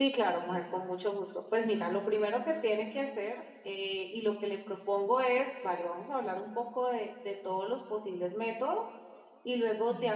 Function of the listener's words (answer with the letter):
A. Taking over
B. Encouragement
B